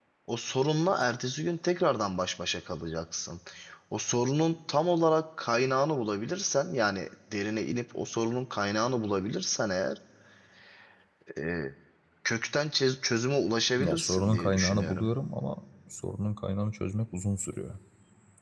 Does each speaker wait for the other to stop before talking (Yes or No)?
No